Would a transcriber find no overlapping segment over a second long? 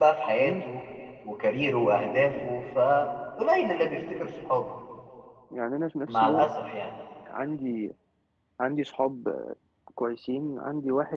Yes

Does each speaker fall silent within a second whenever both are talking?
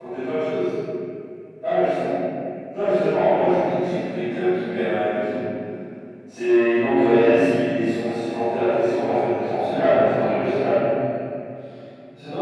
No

